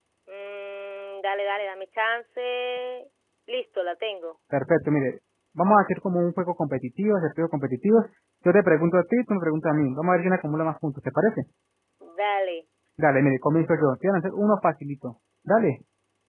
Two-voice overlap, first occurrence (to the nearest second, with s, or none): none